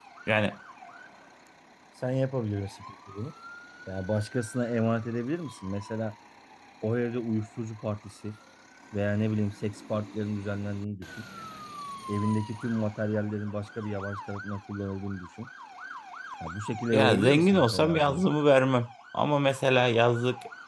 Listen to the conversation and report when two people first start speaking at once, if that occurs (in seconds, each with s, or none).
16.9 s